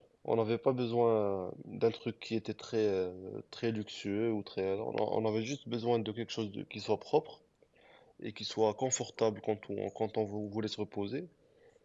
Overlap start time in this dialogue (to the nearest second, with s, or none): none